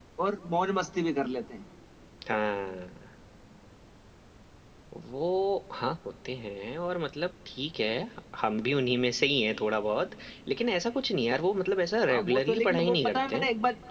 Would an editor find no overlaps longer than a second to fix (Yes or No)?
No